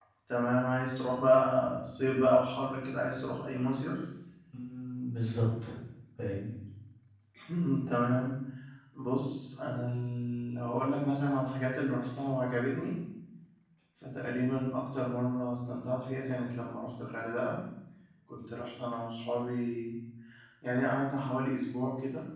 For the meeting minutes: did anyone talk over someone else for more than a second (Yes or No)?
No